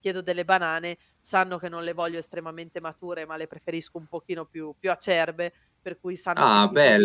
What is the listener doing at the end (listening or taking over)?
listening